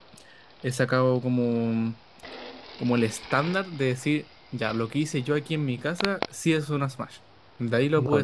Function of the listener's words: taking over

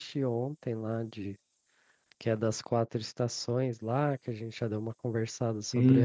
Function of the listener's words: taking over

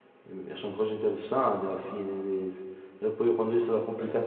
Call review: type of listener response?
listening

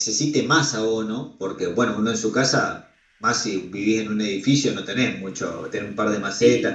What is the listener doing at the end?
listening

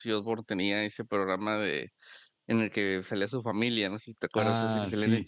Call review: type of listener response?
taking over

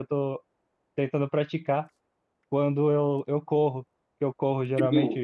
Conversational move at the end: listening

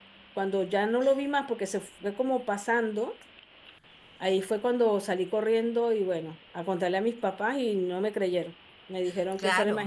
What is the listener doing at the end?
taking over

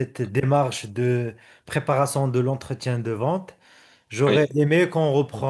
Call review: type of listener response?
listening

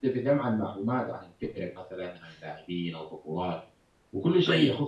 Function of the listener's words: listening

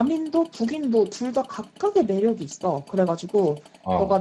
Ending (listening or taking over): listening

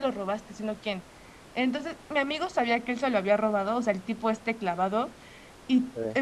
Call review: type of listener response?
listening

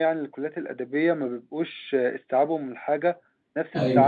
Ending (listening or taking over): listening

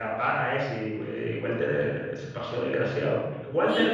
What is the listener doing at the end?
listening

